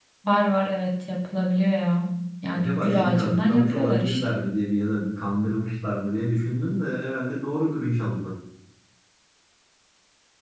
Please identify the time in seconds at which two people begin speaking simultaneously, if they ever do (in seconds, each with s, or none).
2.5 s